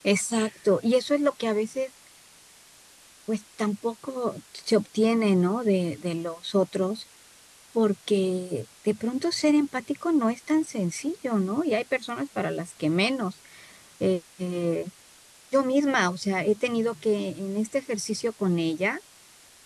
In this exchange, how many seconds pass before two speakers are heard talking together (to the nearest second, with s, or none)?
none